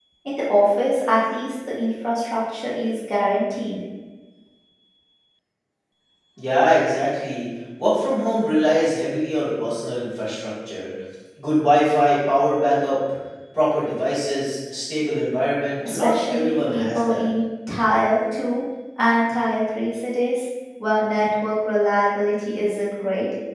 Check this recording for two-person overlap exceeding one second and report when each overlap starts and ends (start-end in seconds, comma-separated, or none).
15.8-17.2